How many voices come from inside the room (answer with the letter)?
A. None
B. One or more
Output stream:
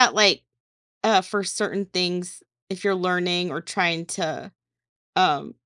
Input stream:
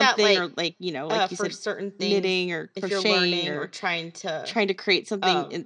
B